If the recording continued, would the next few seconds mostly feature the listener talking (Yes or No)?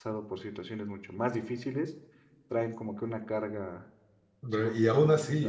Yes